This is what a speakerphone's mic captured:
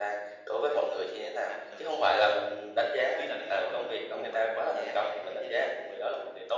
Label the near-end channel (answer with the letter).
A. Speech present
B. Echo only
A